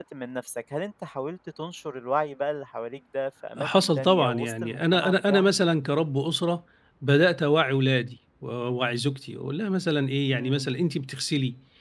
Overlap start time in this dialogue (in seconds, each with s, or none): 3.6 s